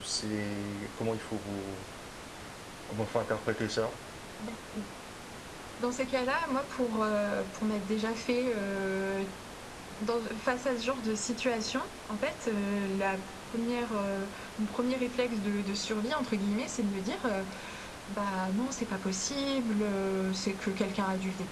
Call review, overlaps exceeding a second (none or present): none